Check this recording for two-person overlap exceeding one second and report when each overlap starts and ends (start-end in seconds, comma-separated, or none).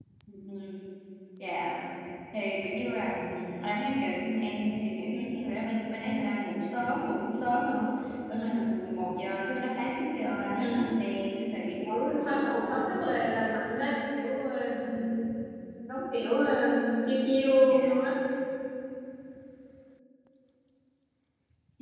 11.8-13.0